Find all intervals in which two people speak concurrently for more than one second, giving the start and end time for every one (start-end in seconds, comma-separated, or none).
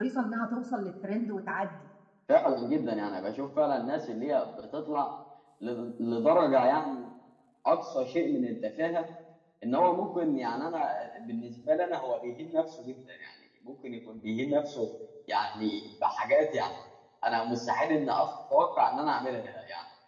none